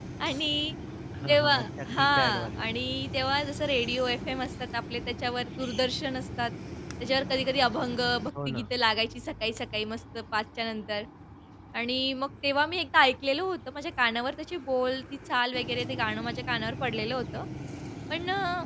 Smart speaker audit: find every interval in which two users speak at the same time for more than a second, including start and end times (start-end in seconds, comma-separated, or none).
1.3-2.6